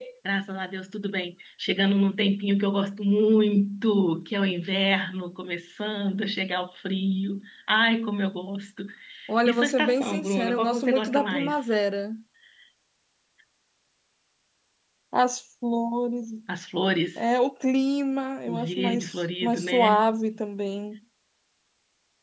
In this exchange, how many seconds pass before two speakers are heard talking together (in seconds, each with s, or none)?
9.4 s